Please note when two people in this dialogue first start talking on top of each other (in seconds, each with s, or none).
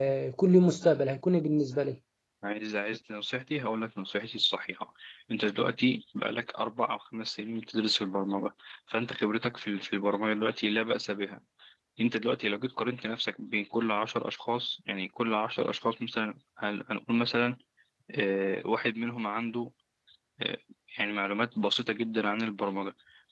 none